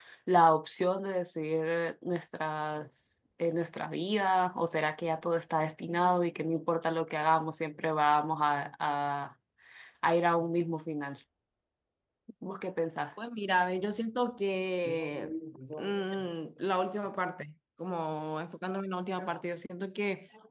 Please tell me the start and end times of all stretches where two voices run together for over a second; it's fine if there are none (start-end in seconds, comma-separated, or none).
none